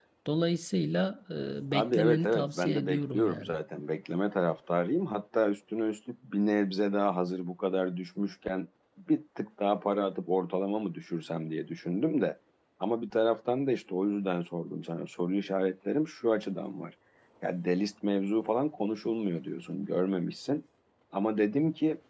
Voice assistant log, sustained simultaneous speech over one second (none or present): present